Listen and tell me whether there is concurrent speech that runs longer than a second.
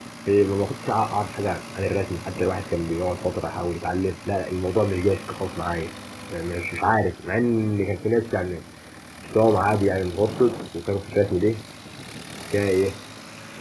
No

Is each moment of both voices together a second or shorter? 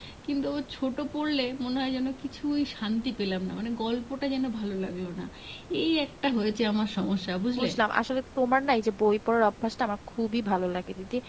Yes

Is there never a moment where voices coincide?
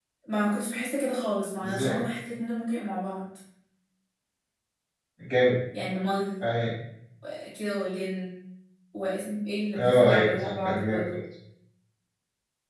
No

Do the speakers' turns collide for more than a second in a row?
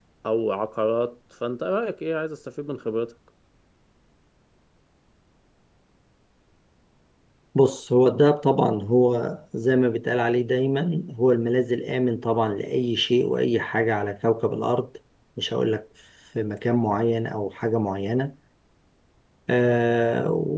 No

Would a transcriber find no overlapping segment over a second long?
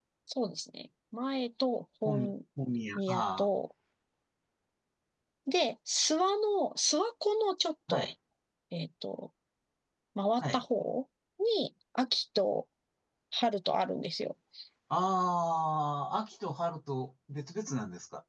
Yes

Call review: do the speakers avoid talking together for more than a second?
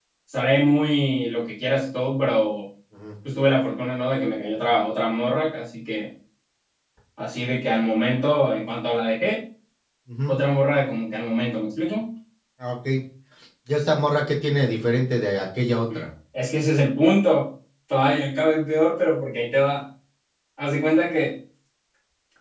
Yes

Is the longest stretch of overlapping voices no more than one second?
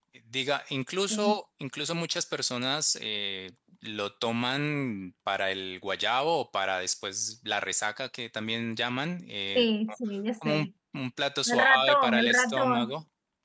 No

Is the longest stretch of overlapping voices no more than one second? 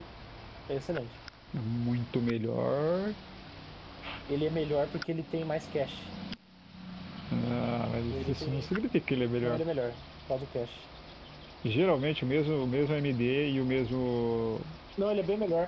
Yes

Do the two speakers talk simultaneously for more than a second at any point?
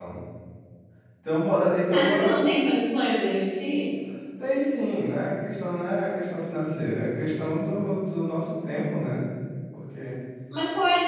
No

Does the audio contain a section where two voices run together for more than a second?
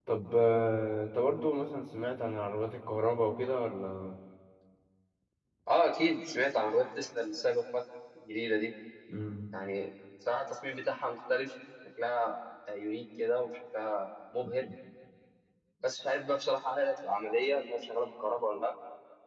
No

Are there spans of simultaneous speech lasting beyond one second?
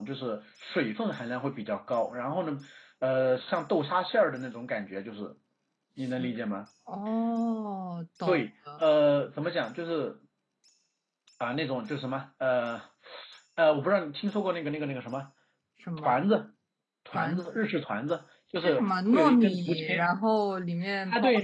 Yes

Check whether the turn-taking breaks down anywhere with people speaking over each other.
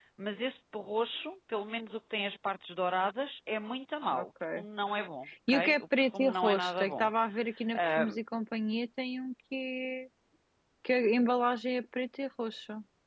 Yes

